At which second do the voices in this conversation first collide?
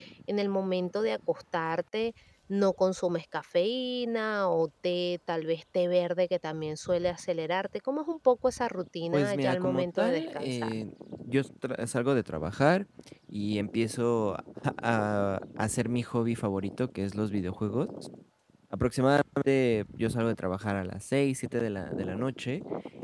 9.1 s

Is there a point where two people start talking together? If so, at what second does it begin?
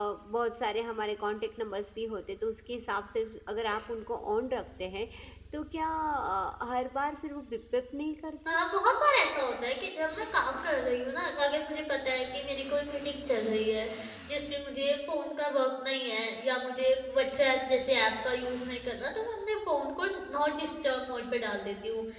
none

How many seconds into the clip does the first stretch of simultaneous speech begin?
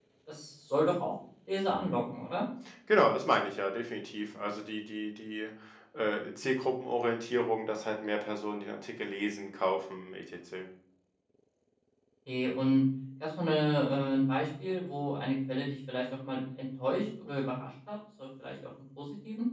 none

